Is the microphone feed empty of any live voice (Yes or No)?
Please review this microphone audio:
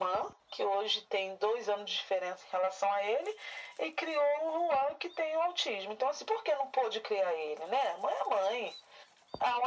Yes